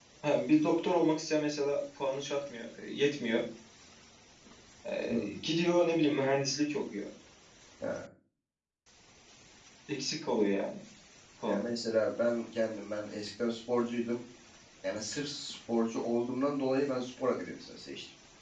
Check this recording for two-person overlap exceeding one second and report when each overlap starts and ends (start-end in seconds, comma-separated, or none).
none